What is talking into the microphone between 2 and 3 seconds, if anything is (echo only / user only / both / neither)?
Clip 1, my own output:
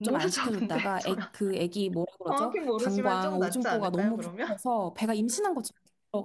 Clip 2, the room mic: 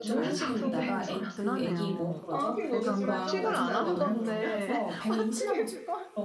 both